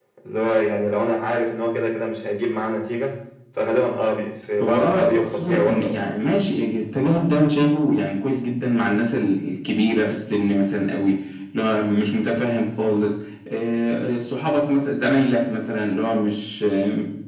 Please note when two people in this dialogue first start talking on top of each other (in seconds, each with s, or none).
4.6 s